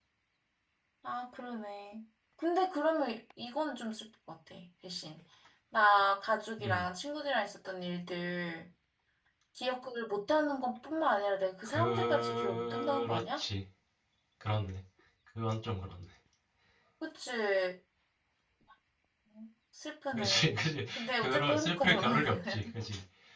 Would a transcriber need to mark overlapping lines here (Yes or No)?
Yes